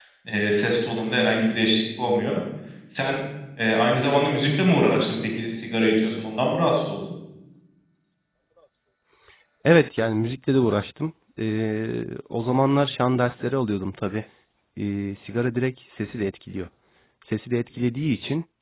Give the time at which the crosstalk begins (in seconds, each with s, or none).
none